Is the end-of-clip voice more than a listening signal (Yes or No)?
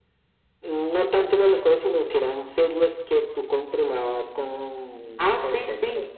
Yes